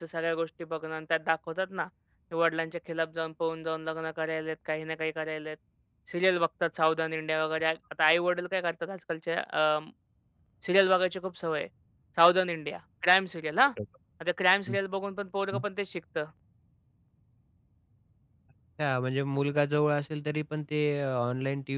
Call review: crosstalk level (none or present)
none